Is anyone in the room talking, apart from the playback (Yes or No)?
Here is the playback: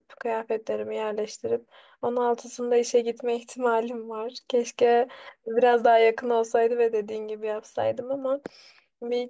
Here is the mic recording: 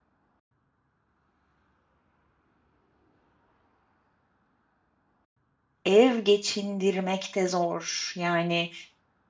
Yes